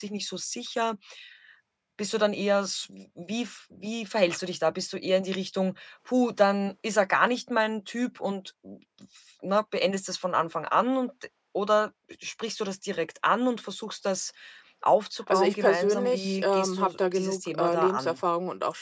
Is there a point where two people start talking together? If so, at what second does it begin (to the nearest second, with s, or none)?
15 s